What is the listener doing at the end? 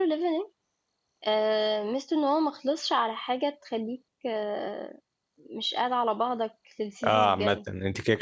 taking over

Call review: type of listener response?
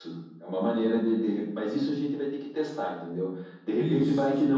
listening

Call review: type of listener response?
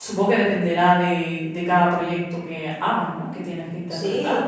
taking over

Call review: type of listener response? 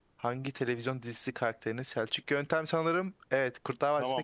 taking over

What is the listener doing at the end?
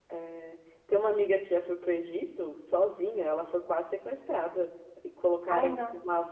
listening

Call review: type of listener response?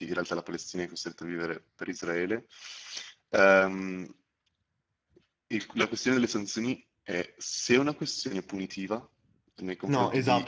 taking over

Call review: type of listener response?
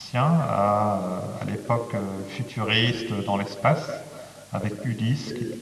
listening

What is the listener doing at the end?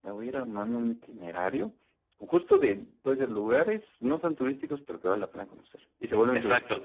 taking over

